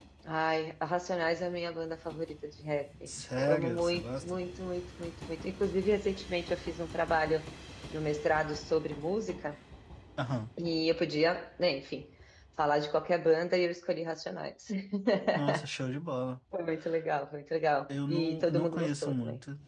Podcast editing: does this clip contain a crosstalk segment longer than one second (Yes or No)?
Yes